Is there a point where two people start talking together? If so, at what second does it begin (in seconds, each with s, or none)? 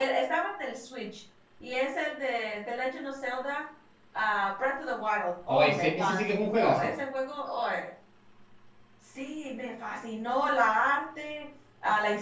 5.5 s